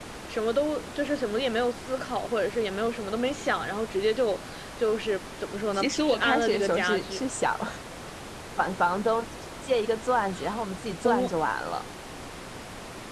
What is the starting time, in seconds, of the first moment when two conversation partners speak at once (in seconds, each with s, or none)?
5.7 s